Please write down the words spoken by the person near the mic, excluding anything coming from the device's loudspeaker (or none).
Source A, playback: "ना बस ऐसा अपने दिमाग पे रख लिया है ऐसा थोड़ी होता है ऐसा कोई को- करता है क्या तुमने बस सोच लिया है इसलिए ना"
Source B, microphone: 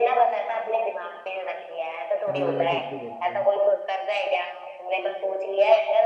तो मेरे वाला झूठ क्यों बोलती है